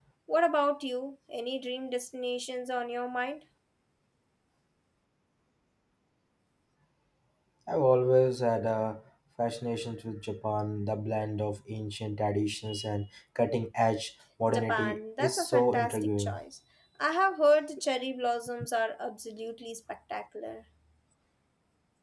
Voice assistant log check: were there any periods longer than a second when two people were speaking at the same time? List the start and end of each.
14.5-16.4

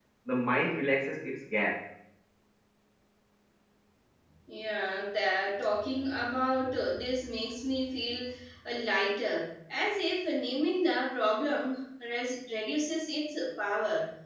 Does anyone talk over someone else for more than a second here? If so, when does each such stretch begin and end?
none

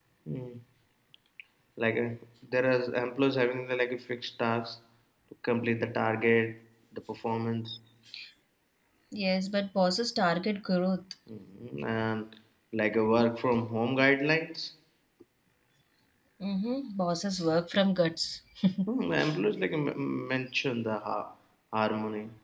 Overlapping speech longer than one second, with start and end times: none

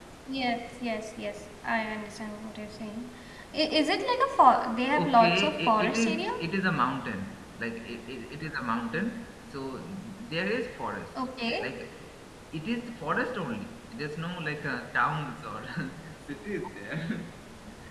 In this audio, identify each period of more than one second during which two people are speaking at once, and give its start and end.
5.0-6.3

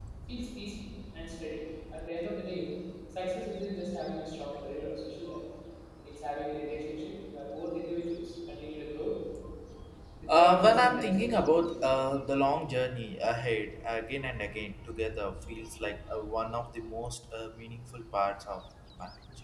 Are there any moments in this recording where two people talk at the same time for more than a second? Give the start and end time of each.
10.3-11.9

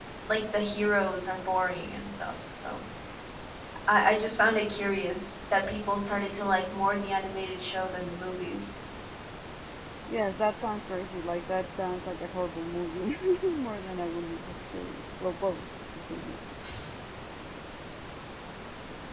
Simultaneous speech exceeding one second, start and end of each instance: none

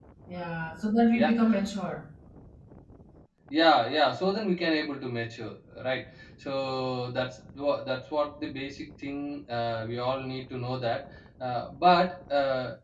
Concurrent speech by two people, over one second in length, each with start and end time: none

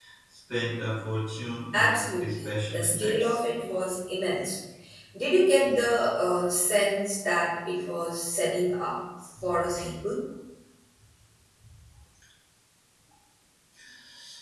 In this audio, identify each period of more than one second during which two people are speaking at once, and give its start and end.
1.7-3.4

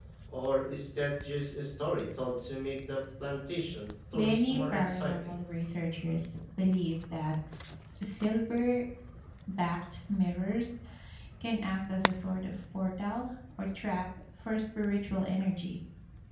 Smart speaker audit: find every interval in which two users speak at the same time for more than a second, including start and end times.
4.1-5.3

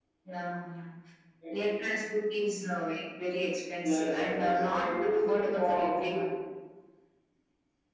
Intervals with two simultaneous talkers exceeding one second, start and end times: 3.8-6.1

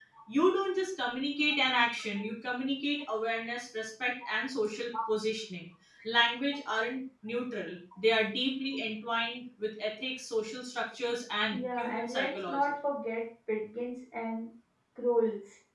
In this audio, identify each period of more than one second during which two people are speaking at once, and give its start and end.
11.5-12.7

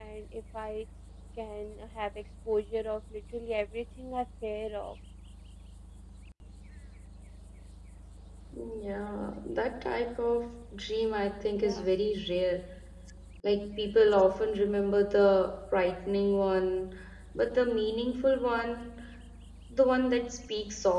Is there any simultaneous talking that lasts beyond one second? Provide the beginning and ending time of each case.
none

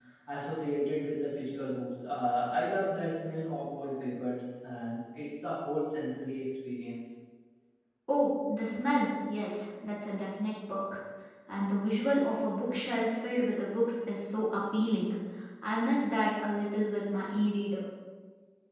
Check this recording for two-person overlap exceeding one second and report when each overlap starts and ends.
none

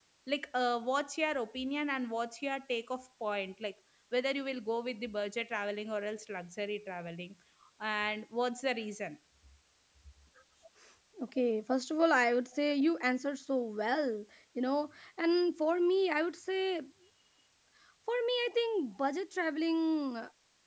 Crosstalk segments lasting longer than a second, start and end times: none

